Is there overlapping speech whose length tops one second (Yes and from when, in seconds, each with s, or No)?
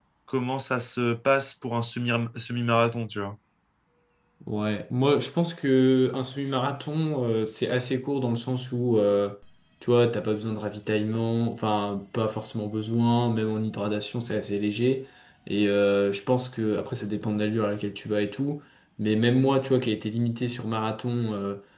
No